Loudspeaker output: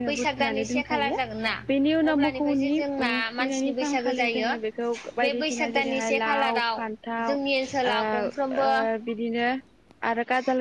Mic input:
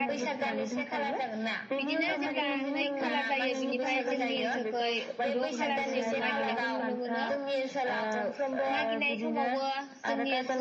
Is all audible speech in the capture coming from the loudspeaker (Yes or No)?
No